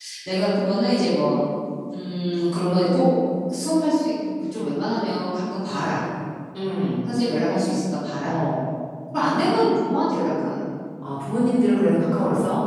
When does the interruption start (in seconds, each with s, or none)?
none